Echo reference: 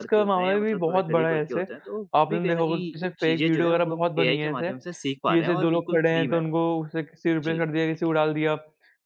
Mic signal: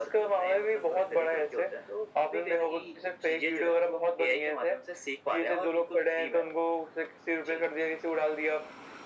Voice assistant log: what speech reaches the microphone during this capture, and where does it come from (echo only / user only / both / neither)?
echo only